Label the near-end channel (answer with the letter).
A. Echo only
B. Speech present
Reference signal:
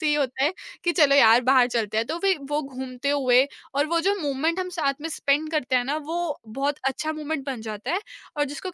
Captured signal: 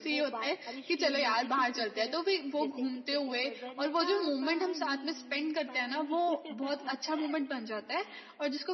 B